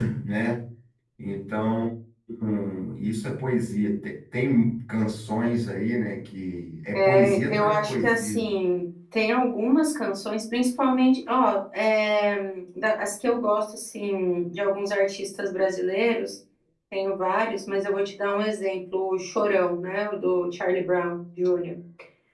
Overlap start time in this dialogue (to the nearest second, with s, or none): 7 s